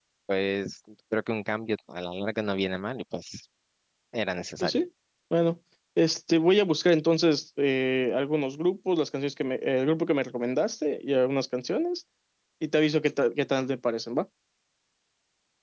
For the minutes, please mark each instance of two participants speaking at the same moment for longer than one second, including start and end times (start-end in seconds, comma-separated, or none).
none